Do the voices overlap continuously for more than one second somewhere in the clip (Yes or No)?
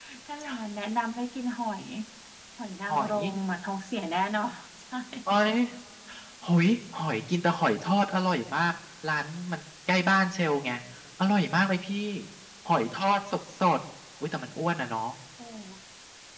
No